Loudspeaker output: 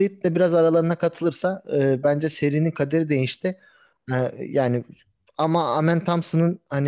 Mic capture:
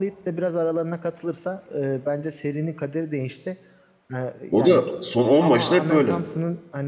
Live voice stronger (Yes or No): Yes